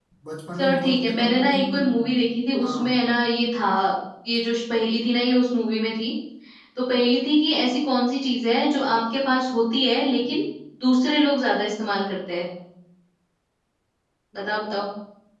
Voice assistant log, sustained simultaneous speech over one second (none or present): present